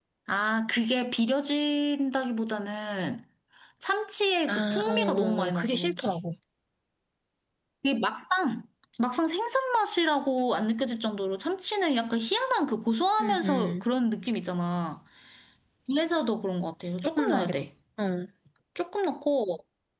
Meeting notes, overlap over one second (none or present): present